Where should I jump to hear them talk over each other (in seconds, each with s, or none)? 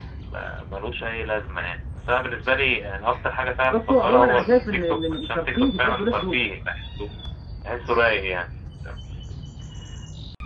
3.7 s